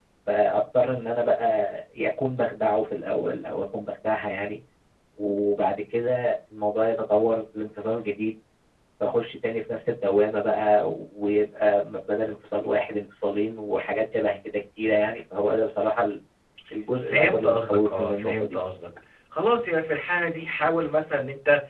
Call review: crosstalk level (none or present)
present